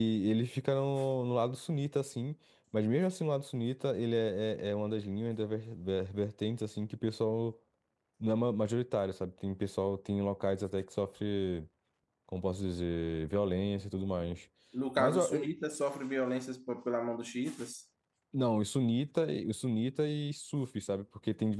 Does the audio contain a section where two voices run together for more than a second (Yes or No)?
No